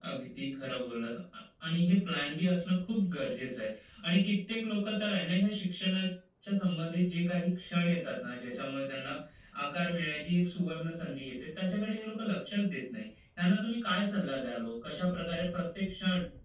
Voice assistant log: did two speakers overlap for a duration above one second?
No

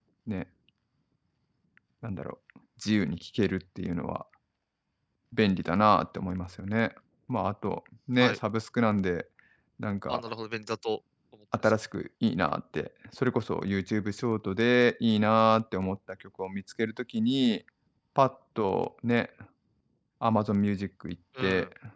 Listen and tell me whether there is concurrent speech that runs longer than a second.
No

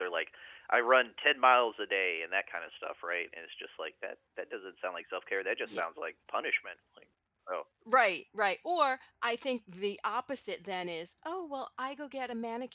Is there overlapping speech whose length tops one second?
No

